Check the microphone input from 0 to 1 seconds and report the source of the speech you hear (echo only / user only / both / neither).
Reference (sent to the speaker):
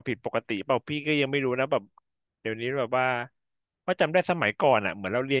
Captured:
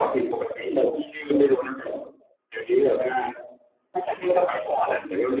echo only